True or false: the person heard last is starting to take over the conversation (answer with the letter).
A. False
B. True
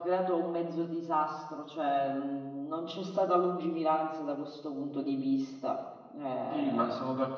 B